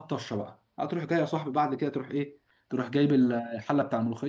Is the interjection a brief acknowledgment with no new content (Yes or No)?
Yes